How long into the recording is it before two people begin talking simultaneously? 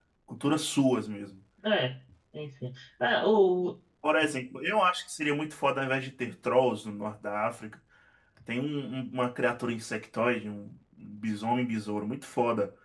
none

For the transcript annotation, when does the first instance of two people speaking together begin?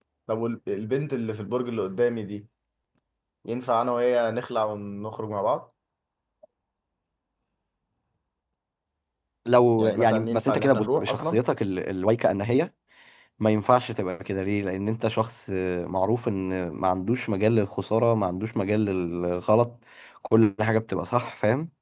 9.8 s

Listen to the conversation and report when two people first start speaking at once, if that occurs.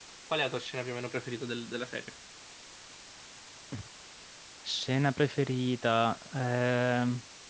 none

